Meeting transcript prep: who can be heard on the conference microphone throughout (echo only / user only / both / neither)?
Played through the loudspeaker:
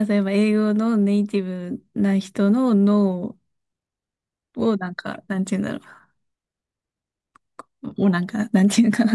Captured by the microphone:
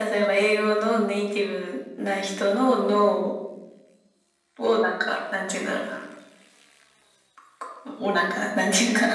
echo only